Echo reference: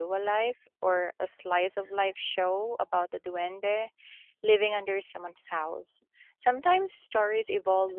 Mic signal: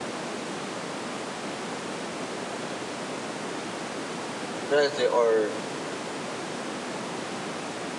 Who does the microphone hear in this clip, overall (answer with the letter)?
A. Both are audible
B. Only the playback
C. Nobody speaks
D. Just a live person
D